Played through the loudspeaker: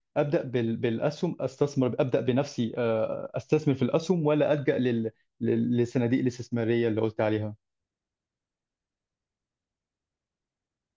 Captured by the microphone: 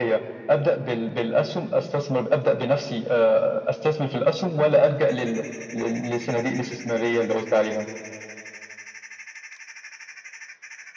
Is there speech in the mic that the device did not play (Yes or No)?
No